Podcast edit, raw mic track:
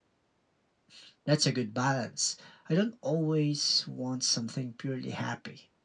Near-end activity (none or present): none